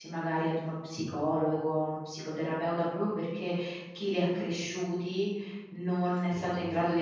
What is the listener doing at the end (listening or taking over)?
listening